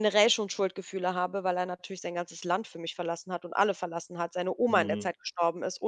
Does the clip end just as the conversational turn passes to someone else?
No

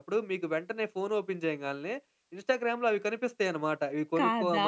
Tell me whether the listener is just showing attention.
Yes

